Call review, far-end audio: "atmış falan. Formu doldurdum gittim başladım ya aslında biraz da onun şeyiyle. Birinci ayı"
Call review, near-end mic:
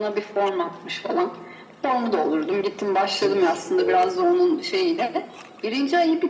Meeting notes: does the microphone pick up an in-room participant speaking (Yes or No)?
Yes